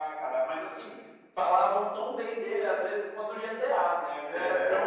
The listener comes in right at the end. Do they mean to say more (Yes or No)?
No